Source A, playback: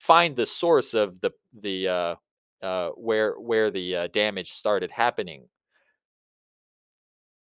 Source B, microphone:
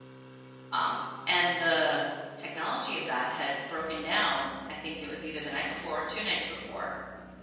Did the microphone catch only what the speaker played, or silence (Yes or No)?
No